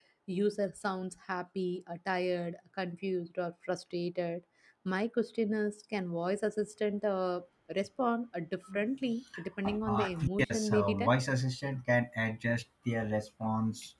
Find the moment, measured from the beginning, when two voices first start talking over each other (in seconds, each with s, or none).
9.6 s